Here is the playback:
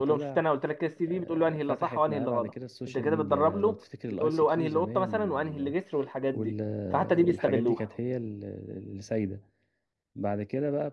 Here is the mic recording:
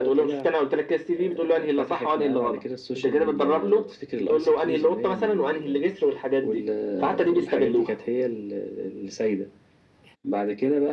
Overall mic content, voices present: echo only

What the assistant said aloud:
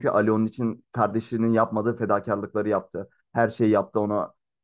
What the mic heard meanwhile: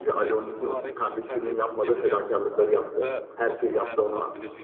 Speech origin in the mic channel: both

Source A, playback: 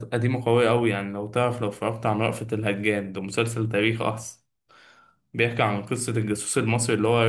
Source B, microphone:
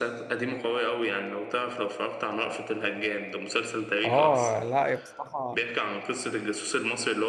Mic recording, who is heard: both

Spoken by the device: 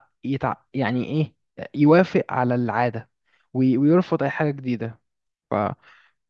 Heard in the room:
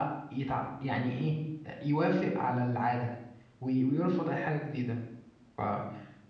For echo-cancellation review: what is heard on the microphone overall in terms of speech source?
echo only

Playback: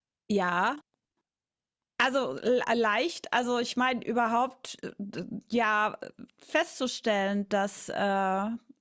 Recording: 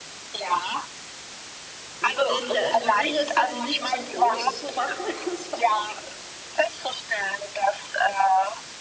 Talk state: both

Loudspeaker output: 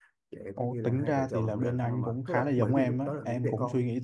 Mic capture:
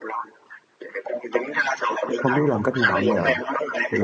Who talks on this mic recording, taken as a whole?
both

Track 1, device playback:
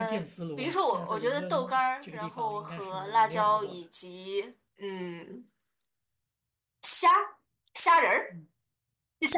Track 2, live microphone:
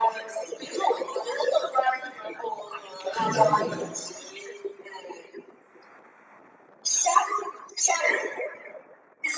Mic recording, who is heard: both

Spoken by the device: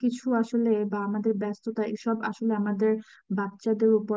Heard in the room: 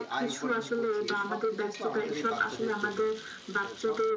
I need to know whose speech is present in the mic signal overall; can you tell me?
both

